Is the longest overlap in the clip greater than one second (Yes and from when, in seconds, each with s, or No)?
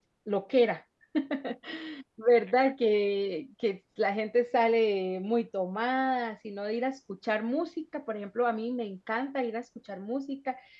No